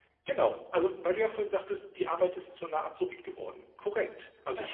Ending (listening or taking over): listening